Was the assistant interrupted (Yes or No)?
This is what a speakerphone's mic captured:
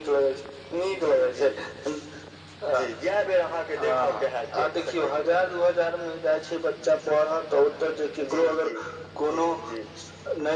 No